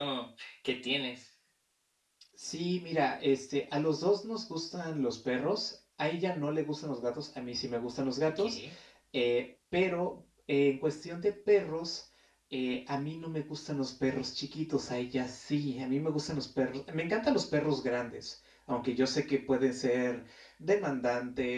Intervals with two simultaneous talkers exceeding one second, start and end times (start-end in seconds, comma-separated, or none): none